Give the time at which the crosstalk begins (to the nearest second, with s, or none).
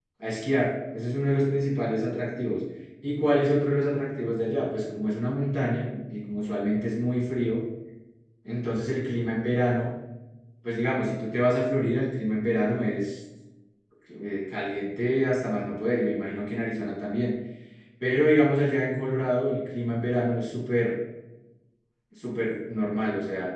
none